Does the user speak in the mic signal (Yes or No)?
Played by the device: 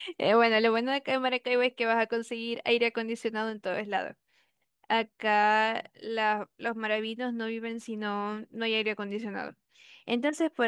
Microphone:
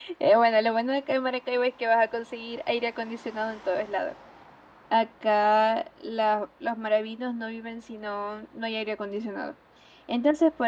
No